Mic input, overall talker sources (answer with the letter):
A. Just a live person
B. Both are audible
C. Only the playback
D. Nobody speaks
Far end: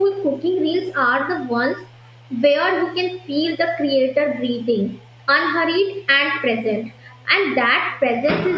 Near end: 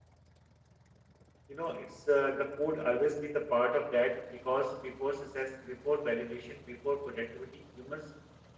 A